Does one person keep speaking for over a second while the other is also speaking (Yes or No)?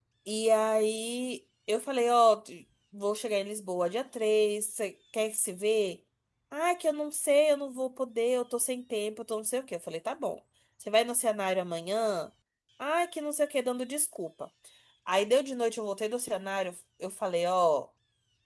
No